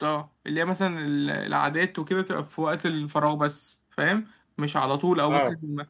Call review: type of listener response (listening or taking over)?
listening